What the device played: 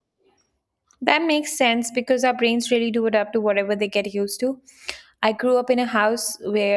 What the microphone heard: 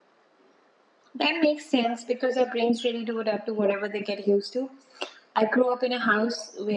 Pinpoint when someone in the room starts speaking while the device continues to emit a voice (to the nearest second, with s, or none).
none